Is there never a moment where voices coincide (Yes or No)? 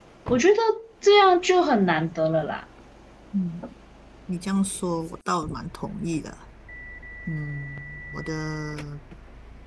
Yes